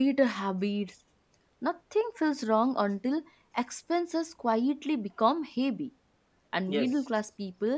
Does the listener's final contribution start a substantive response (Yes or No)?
No